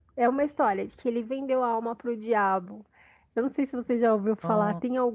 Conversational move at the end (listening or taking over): listening